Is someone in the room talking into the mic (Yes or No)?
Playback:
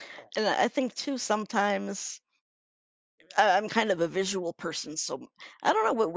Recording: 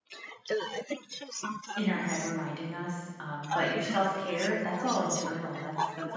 Yes